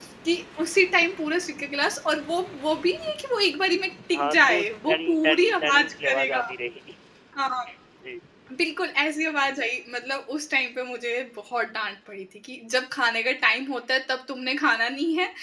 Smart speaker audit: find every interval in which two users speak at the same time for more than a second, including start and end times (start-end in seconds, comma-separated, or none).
4.1-6.4